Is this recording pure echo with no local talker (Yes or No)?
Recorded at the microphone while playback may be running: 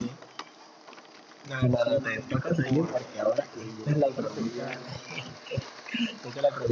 No